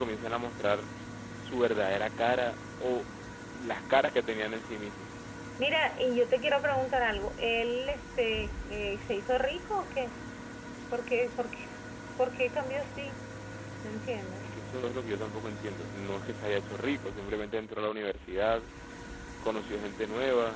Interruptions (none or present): none